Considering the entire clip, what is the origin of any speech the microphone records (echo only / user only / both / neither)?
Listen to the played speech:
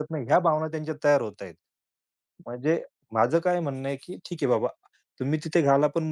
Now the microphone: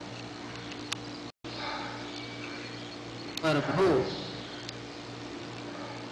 user only